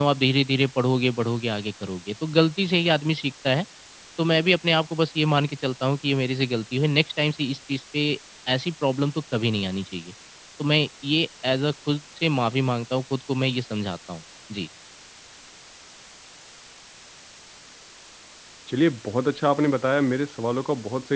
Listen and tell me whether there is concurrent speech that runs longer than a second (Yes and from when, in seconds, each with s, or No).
No